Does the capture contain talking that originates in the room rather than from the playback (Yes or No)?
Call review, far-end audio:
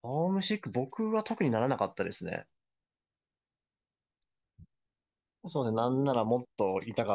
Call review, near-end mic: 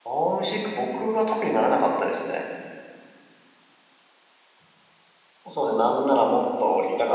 No